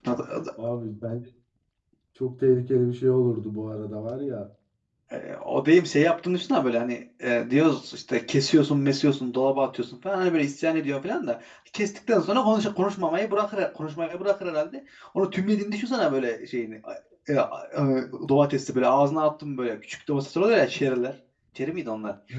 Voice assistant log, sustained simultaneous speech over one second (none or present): none